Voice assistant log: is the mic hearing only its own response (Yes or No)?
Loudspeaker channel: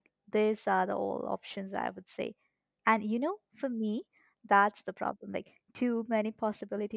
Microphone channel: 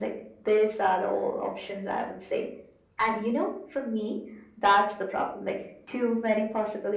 Yes